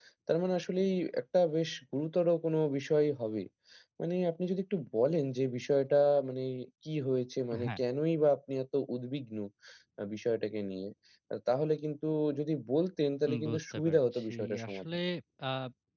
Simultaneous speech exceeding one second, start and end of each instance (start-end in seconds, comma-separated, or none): 13.3-14.8